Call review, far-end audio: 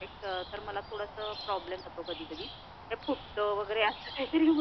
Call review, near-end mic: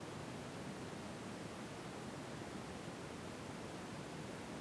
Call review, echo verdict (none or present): none